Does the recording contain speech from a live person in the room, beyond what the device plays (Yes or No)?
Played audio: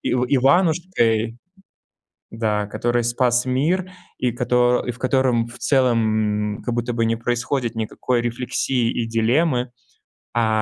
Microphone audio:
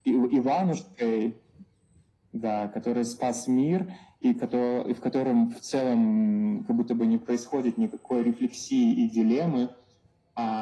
No